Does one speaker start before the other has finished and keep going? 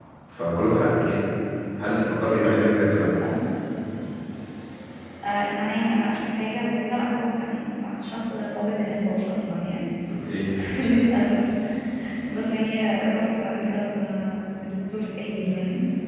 No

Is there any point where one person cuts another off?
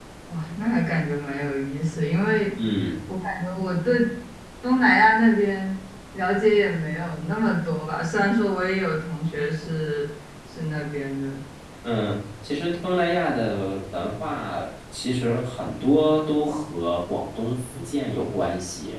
No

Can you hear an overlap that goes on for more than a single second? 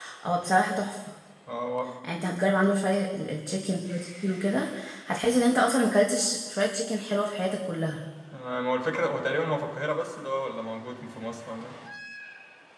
No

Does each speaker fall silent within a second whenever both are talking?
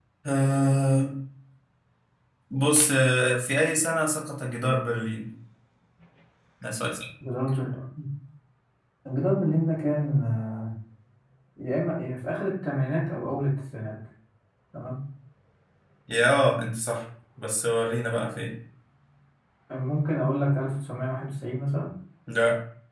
Yes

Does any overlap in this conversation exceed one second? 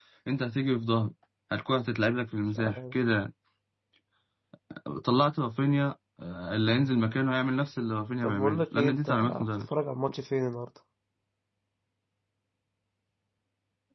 Yes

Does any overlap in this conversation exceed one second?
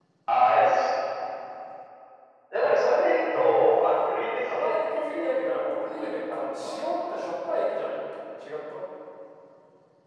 Yes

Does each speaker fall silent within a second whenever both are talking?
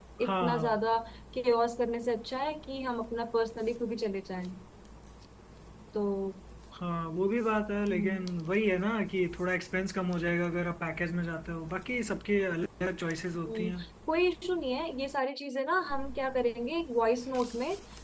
Yes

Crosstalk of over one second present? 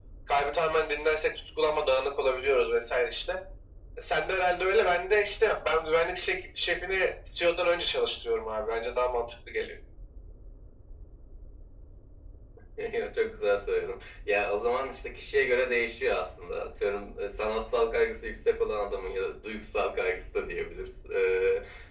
No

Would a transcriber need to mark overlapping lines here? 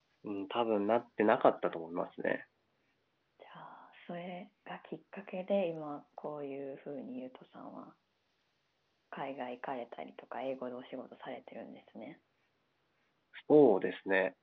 No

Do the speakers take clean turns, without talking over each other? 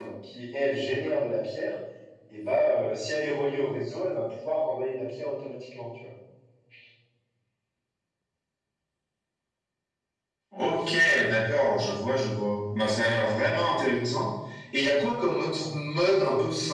Yes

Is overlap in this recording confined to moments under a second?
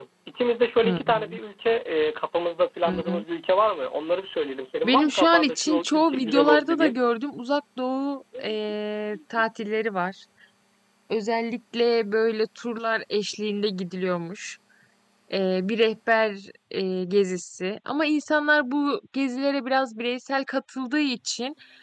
No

